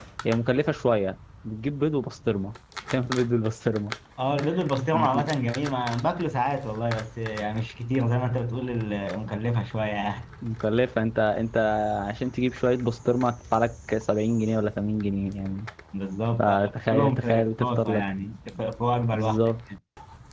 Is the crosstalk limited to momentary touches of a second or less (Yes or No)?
No